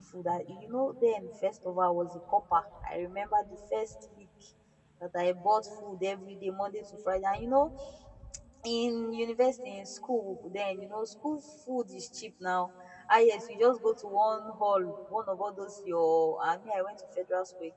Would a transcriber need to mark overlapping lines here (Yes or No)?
No